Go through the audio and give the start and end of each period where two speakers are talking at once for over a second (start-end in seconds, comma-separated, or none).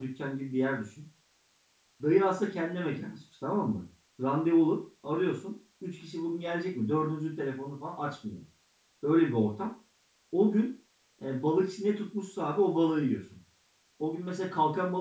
none